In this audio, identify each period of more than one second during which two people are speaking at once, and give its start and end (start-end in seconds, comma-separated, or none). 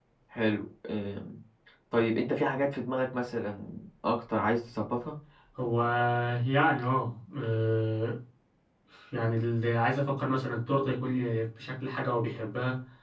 none